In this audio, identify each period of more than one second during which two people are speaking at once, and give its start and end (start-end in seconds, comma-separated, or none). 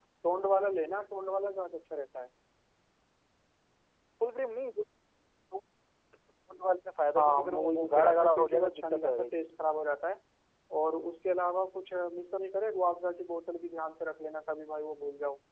7.2-9.5